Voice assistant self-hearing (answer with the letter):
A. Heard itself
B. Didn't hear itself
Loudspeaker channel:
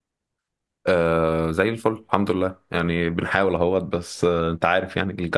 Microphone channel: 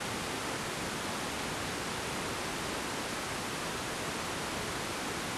B